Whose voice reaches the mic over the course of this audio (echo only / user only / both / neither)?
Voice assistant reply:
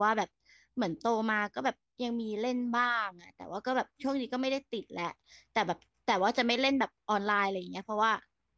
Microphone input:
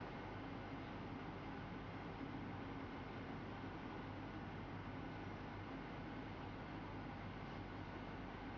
neither